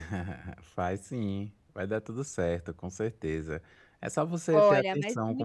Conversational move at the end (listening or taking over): taking over